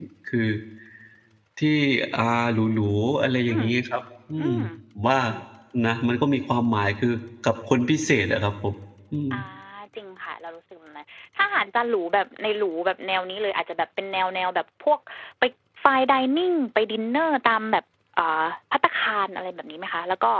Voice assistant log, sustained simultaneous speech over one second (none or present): none